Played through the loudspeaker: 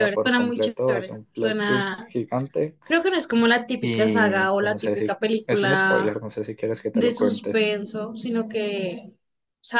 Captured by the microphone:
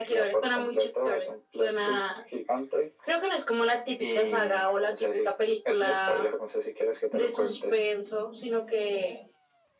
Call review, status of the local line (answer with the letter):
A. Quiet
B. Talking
A